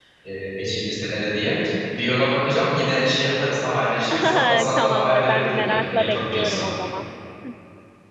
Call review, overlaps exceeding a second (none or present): present